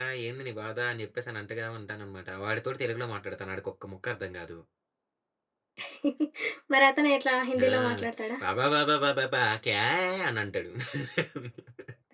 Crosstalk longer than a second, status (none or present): none